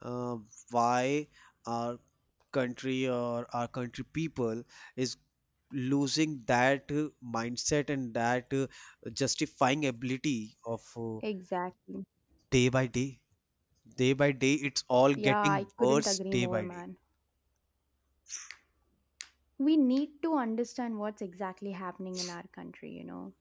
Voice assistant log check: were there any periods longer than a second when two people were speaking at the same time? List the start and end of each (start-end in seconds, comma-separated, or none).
15.2-16.8